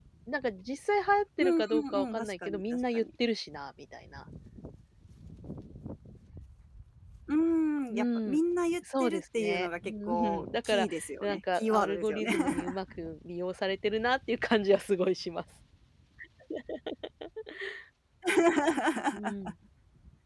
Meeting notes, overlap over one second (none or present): present